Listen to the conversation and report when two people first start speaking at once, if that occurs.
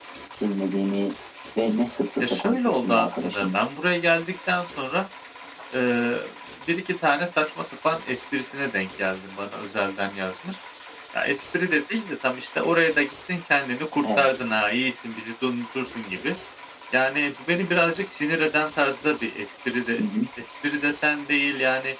2.3 s

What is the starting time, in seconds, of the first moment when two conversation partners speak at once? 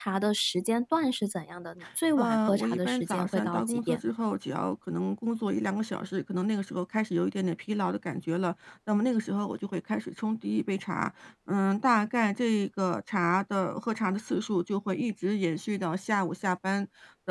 2.2 s

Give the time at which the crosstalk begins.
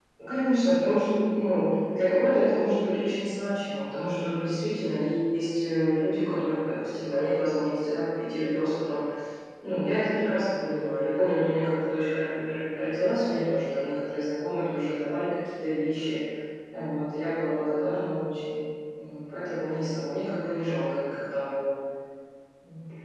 none

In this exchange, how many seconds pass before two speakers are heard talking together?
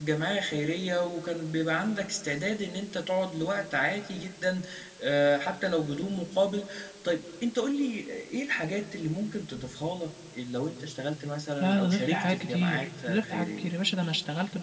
11.6 s

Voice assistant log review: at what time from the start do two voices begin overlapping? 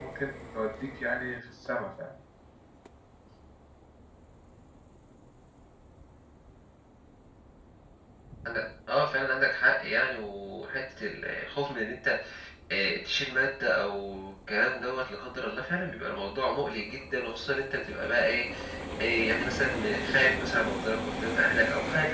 none

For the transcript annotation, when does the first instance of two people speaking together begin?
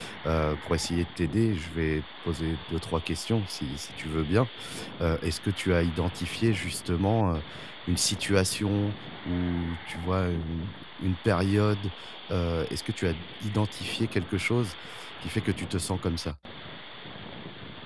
none

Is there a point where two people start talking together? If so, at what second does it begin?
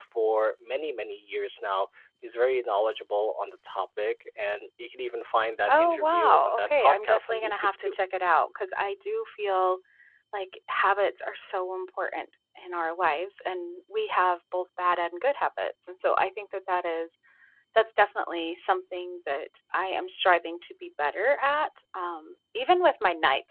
5.7 s

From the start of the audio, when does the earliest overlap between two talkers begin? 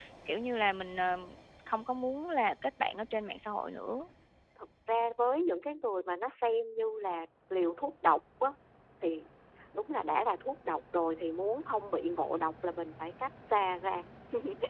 none

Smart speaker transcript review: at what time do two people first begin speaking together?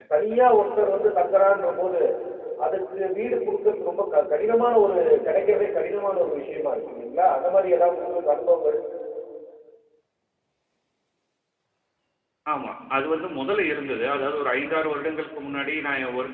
none

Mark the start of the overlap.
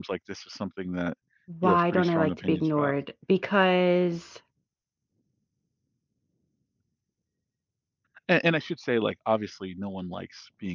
1.6 s

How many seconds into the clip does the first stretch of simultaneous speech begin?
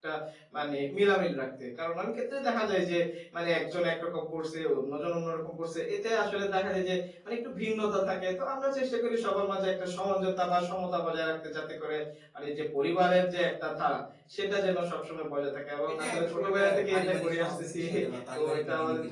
15.9 s

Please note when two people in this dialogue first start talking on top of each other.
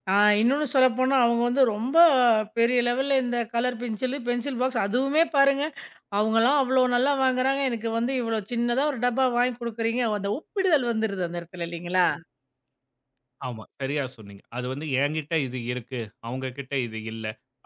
none

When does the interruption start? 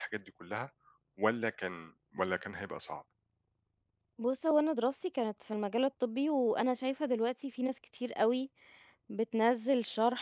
none

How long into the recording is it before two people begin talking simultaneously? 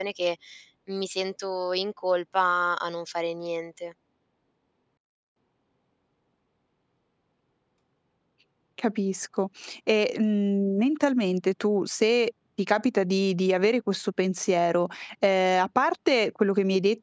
none

